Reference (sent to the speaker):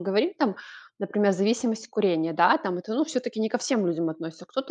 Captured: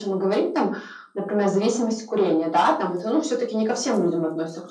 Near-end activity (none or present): none